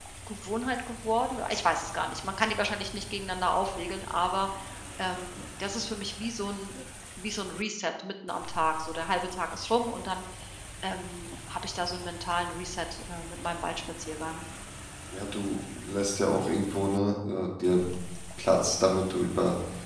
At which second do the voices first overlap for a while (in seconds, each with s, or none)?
none